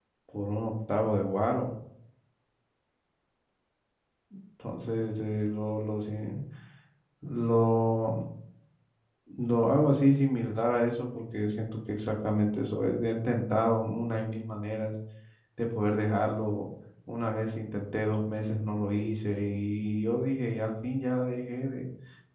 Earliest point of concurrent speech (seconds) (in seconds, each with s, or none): none